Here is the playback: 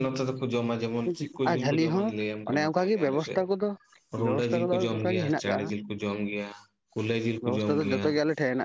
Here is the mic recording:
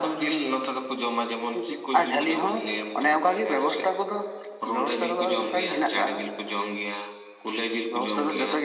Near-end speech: none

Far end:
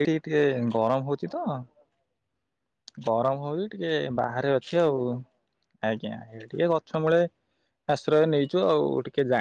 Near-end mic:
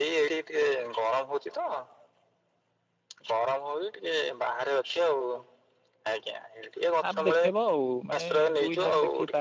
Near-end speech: present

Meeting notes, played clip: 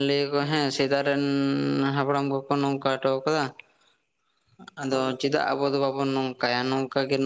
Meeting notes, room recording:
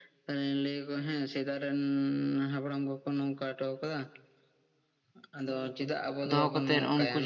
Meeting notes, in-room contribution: present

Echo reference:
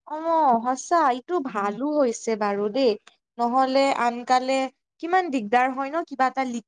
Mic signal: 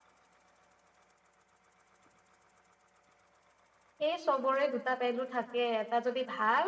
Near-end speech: present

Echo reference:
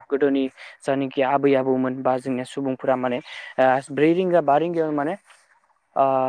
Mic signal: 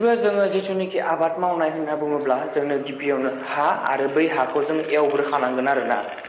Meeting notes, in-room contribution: present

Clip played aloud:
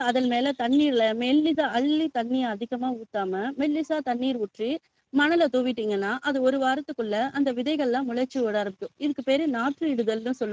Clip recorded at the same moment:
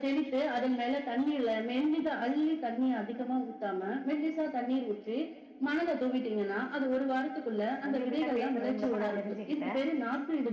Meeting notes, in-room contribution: present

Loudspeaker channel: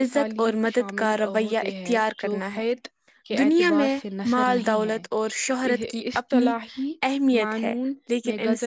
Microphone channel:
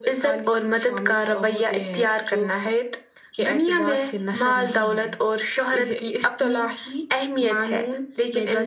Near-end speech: none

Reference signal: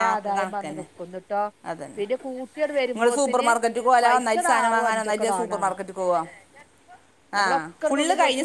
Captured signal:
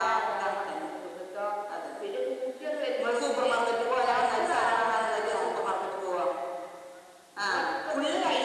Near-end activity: none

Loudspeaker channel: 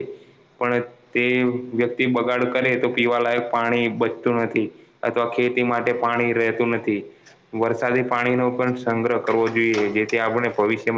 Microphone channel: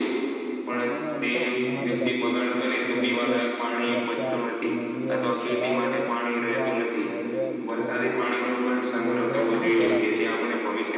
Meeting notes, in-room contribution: present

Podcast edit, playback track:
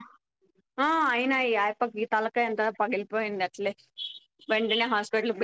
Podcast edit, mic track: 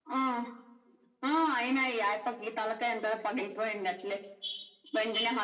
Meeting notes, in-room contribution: none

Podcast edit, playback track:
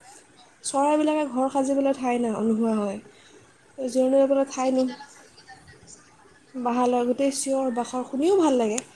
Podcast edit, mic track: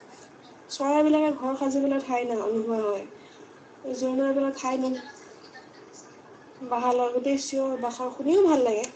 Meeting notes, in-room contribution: none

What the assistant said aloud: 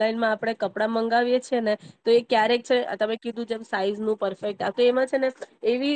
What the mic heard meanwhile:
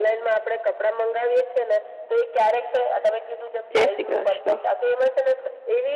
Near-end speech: present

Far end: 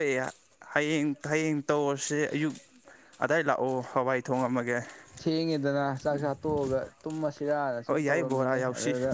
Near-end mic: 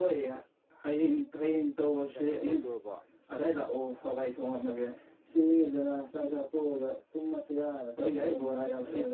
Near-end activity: present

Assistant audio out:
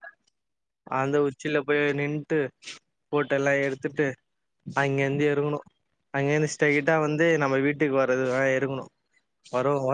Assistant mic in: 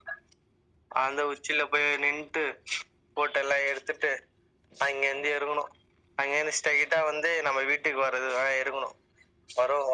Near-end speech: none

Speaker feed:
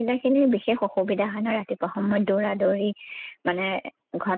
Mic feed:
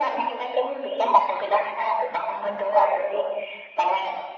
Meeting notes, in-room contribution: none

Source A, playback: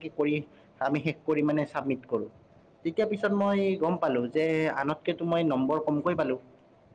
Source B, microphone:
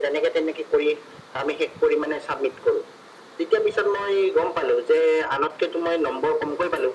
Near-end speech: none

